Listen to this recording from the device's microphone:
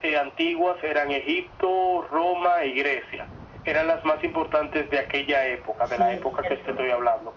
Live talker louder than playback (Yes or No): No